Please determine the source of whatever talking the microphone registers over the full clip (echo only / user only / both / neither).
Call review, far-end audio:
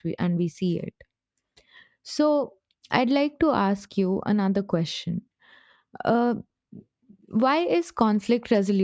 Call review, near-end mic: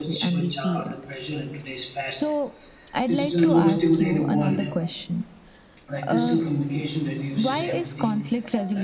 both